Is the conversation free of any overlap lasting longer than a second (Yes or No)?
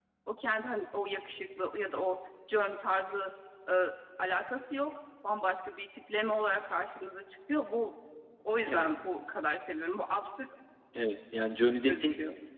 Yes